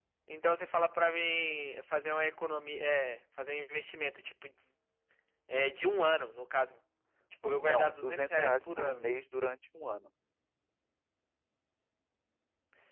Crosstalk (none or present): present